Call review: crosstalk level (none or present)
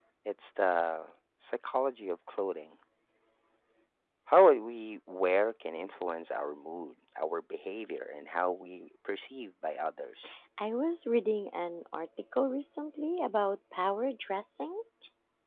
none